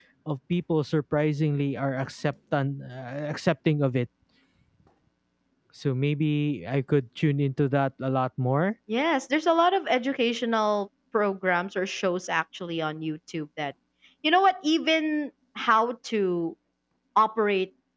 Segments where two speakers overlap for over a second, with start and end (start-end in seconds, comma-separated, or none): none